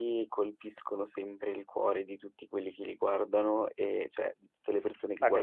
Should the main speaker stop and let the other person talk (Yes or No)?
Yes